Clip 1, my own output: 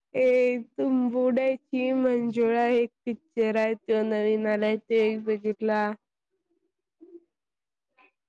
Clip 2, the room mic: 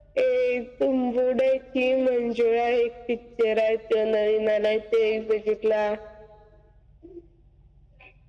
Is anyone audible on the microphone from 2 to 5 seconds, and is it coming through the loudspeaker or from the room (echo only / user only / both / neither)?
echo only